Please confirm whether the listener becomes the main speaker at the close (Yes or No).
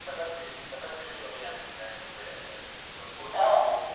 Yes